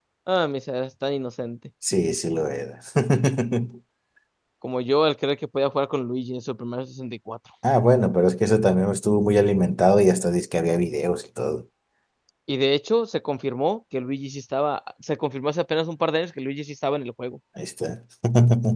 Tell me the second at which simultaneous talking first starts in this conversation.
none

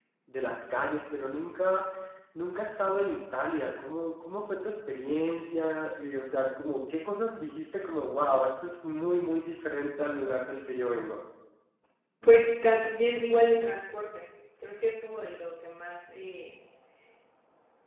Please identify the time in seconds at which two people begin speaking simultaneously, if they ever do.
none

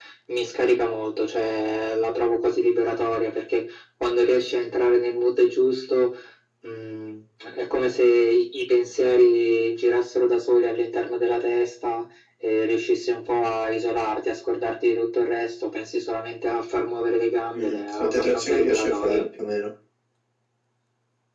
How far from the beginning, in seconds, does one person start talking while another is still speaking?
17.5 s

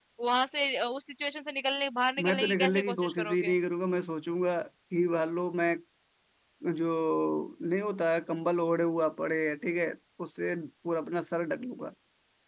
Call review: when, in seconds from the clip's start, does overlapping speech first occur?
2.2 s

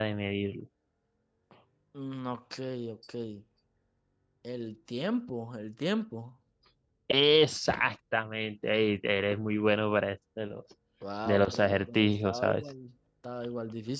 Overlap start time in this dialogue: 11.2 s

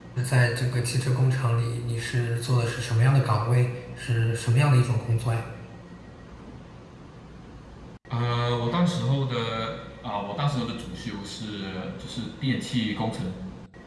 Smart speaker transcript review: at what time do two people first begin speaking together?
none

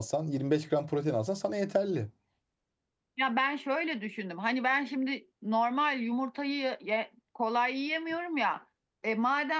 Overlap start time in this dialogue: none

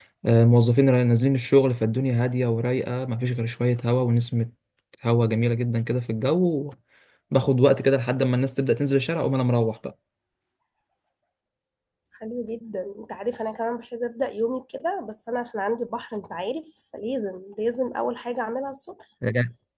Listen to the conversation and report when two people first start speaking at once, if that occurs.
none

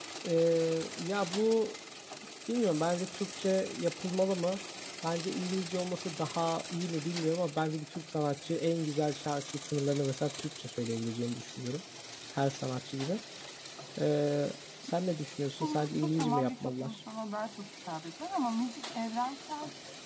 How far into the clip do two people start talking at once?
15.6 s

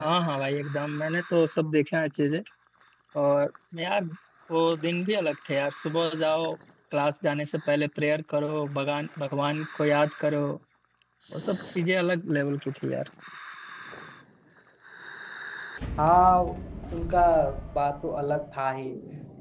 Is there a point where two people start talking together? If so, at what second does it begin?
none

